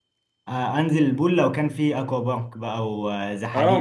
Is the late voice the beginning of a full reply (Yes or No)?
Yes